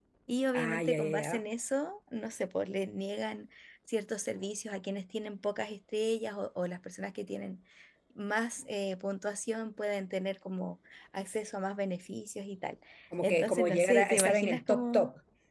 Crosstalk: present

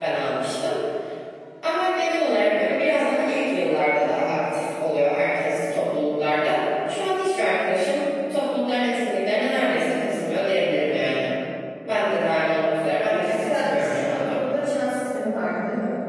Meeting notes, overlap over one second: present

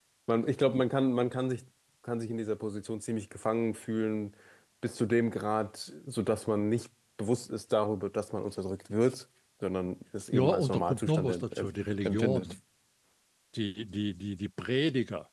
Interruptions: present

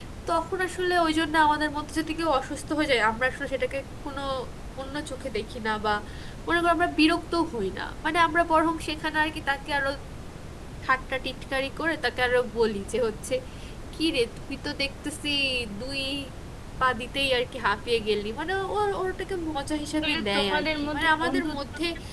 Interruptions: present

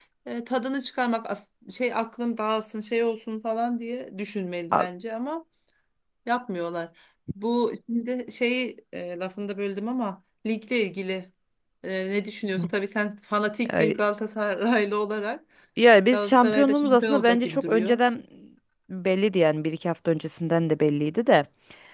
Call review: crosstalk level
present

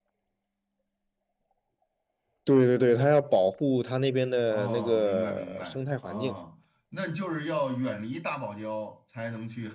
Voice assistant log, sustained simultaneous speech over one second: present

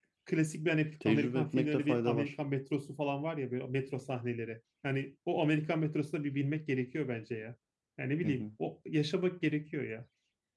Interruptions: present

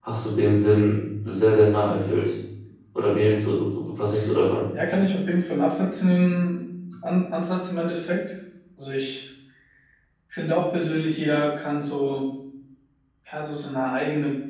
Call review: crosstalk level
none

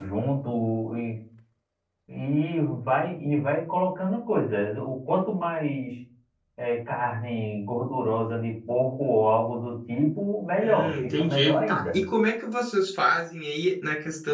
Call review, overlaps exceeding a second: present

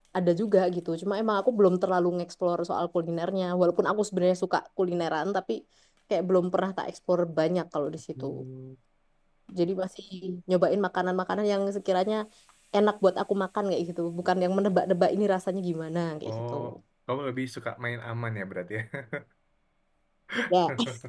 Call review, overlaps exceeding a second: none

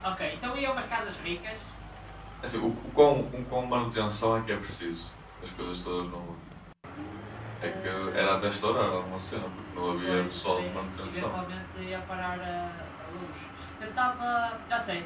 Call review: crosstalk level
present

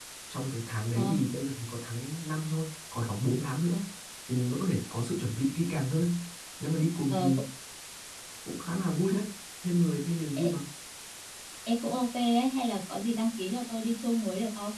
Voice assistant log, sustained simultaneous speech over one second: none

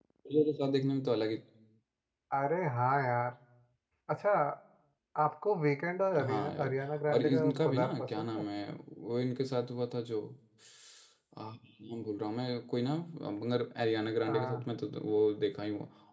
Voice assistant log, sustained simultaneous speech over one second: present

